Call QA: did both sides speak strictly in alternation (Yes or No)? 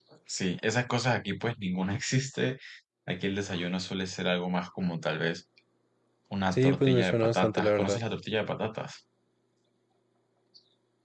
No